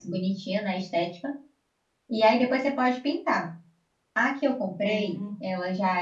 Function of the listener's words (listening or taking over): listening